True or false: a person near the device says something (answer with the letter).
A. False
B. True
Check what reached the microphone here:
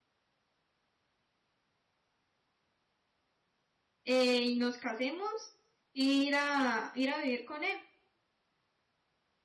B